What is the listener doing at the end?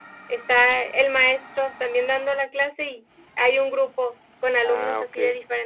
listening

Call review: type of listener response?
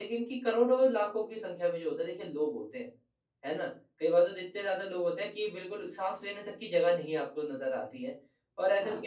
listening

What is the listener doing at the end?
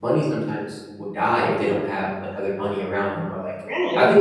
listening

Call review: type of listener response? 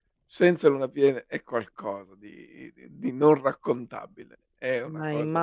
listening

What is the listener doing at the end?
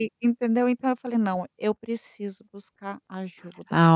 taking over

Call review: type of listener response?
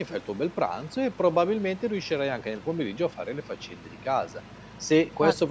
listening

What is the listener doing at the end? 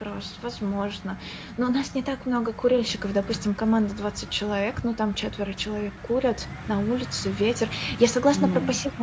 listening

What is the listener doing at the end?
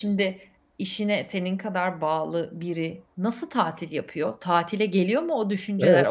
taking over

